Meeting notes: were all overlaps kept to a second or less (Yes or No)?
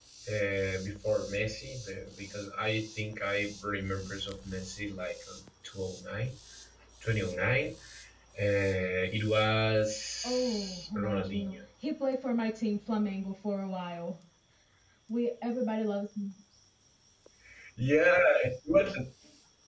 No